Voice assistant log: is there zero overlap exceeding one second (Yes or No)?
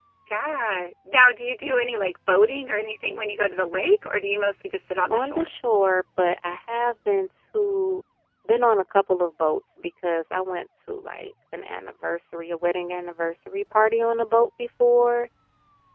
Yes